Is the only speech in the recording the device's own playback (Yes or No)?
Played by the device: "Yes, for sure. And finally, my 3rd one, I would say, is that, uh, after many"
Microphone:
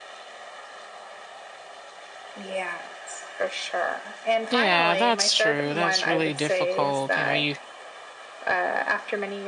No